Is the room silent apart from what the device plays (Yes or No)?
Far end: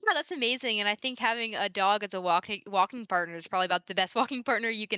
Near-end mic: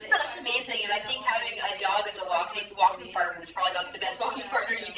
No